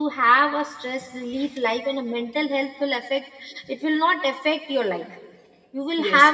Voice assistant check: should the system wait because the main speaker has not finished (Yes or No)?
No